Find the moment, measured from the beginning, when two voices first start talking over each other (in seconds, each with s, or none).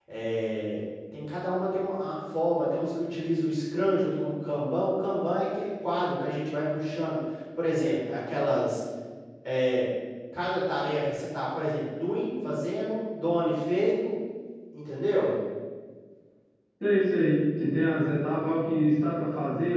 none